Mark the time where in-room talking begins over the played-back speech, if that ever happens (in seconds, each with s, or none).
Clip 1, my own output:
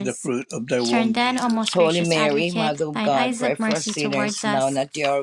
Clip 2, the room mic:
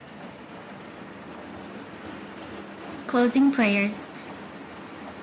3.1 s